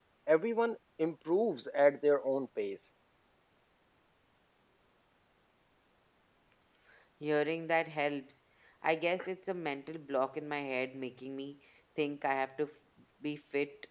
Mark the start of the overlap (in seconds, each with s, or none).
none